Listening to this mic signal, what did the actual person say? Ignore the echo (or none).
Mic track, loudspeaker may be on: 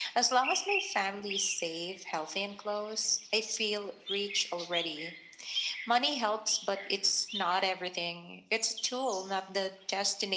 none